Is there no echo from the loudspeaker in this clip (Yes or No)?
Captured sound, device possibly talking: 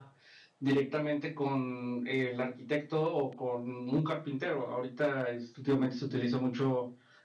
Yes